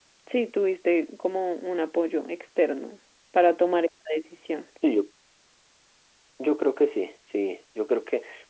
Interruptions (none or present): none